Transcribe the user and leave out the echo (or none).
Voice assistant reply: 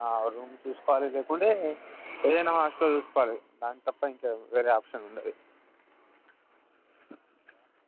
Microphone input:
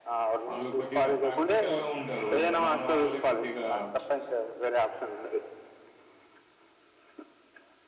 వాళ్ళు కొద్దిగా ప్రాక్టికల్ గ ఉంటరు మన వాళ్ళే కొద్దిగా చుప్